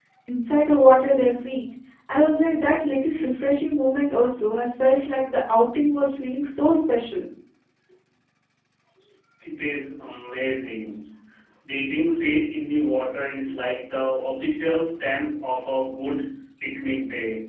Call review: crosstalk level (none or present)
none